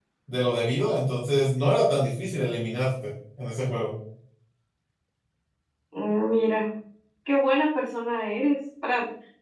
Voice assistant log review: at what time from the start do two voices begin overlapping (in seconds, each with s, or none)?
none